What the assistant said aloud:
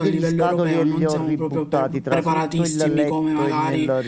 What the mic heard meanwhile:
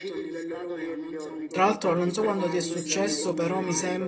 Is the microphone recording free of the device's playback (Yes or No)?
No